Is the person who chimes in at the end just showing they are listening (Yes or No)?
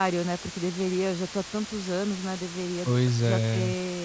Yes